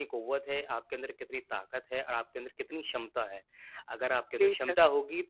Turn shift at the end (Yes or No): No